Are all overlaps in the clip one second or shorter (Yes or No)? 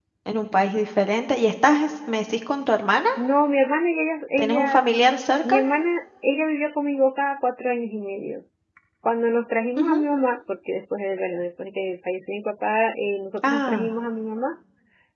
Yes